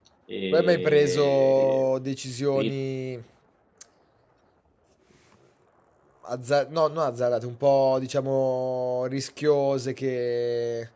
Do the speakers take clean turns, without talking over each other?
No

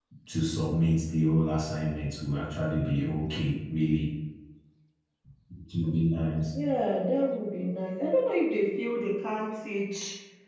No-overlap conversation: Yes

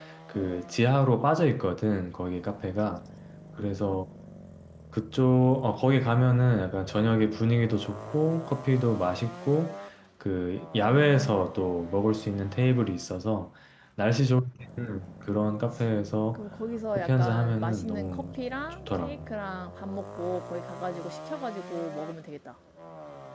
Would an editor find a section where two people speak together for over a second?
Yes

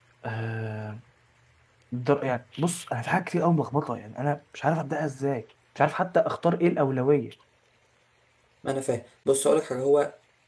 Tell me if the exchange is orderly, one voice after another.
Yes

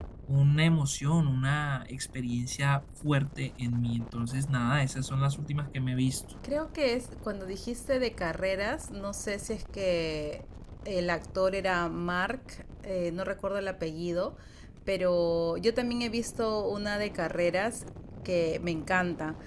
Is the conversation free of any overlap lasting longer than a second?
Yes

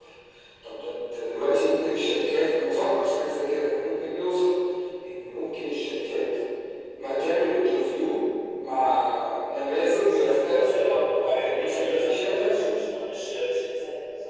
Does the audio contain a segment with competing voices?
Yes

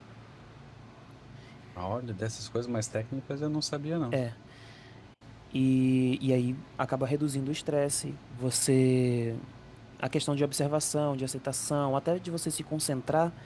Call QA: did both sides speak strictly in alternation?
Yes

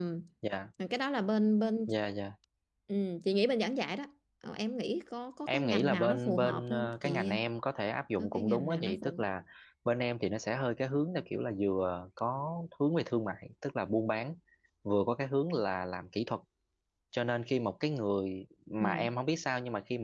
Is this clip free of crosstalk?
No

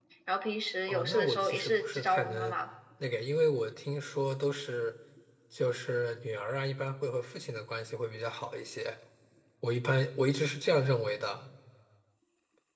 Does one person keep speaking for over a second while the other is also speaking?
Yes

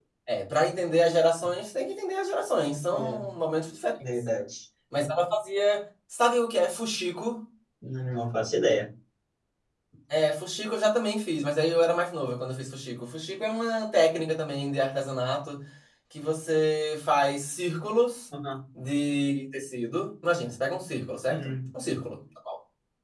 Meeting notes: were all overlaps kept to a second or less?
Yes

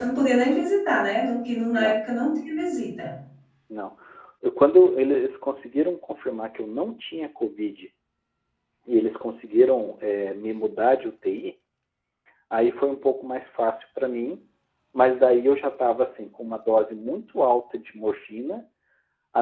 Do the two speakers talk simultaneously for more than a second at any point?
No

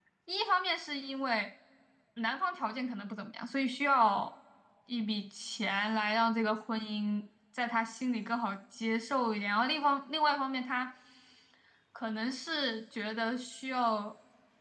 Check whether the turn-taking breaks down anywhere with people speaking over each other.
No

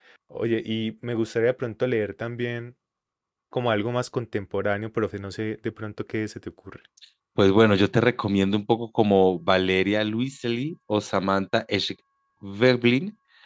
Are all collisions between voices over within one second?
Yes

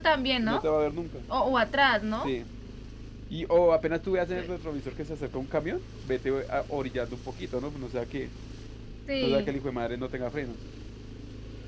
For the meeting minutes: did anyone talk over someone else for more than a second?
No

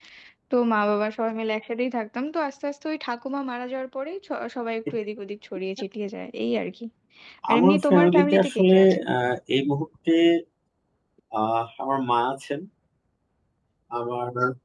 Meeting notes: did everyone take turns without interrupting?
No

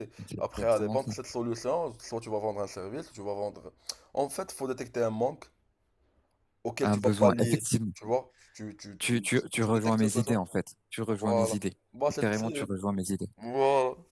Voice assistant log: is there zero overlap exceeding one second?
No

